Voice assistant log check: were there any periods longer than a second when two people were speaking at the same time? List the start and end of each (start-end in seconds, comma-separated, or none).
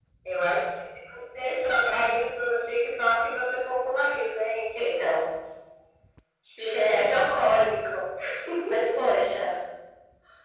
6.6-8.0